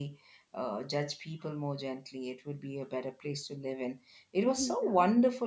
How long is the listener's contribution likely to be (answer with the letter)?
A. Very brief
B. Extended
A